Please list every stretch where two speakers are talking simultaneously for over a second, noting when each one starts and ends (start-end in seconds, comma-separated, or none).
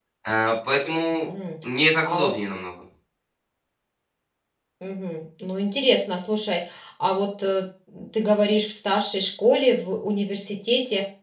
none